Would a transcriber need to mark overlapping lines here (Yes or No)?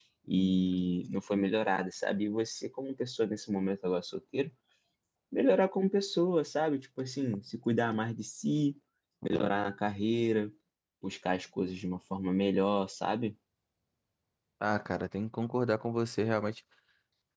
No